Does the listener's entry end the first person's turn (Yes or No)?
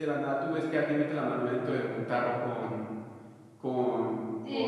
Yes